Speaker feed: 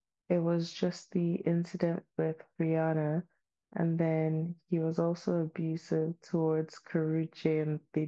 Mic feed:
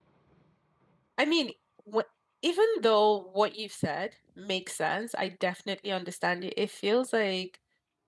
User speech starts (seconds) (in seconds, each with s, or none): 1.2 s